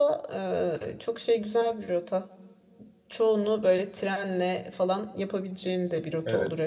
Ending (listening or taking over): taking over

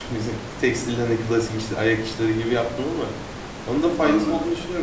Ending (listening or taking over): listening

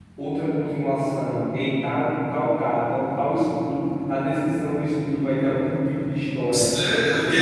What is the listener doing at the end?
taking over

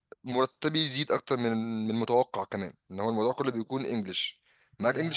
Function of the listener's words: listening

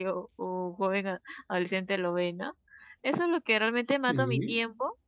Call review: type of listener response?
listening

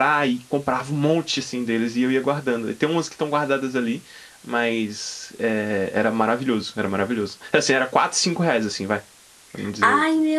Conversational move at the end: taking over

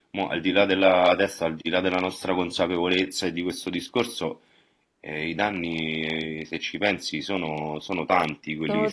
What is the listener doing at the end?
taking over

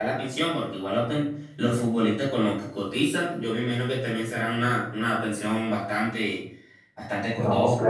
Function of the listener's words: taking over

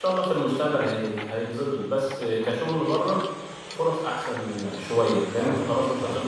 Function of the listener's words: listening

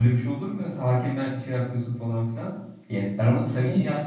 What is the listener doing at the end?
listening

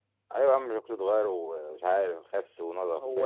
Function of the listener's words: taking over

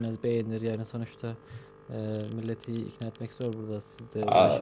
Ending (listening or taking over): taking over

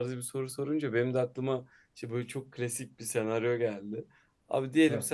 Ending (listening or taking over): listening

